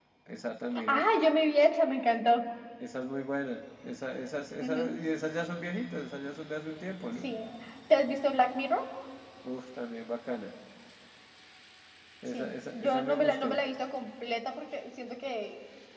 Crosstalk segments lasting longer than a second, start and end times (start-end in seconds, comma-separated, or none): 12.3-13.6